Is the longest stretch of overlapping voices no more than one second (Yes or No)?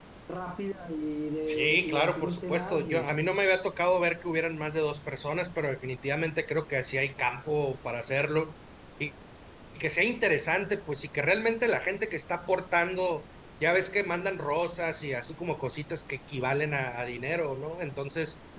No